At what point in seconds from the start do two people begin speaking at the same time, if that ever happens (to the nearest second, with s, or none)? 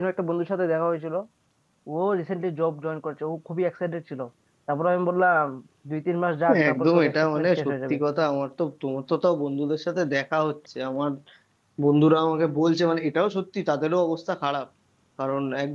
7 s